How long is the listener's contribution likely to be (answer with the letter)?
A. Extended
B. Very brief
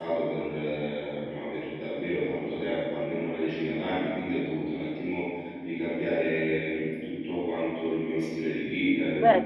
A